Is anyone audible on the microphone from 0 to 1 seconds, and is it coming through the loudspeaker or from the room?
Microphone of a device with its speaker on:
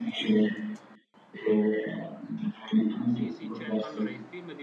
echo only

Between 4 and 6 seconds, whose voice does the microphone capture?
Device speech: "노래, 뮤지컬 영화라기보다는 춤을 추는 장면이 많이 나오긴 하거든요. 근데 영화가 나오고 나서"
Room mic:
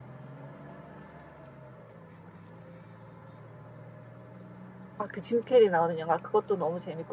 user only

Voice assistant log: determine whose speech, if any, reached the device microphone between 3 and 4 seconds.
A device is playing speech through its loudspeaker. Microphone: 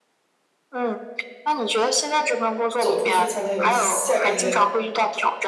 both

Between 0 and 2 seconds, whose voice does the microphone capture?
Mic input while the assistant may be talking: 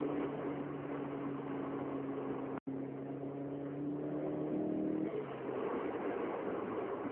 neither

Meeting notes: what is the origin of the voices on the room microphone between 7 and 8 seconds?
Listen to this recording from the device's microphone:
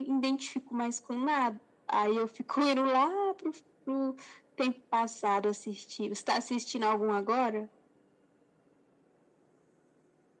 echo only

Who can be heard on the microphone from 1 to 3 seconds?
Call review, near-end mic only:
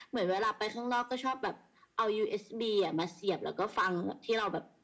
echo only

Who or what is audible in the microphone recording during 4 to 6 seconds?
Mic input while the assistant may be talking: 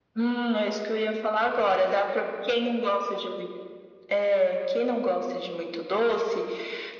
echo only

